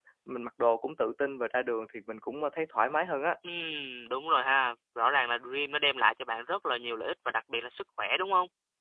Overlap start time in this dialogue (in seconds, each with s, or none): none